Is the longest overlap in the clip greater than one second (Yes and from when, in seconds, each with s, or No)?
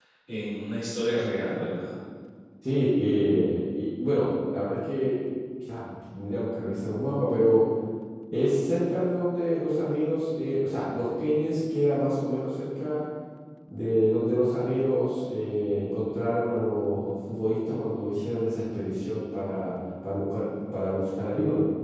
No